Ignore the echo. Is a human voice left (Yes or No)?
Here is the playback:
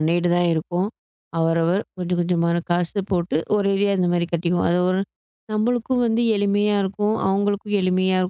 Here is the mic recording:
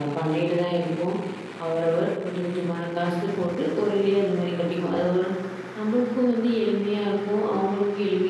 No